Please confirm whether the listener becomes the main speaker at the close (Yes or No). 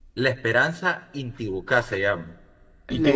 No